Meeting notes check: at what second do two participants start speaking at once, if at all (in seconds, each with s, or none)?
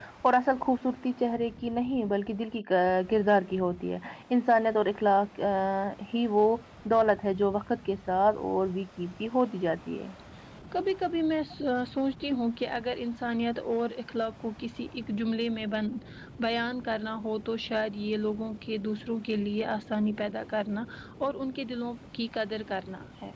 none